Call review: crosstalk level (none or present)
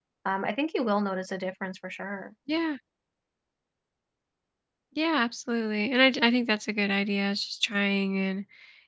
none